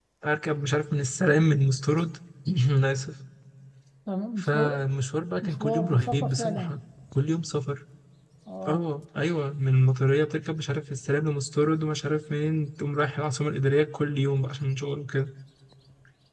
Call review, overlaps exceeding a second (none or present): present